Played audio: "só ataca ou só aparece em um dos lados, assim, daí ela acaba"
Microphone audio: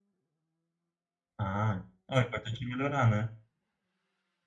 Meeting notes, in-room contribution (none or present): present